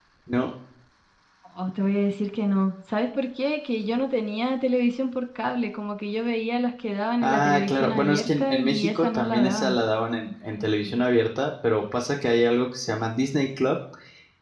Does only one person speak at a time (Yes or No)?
No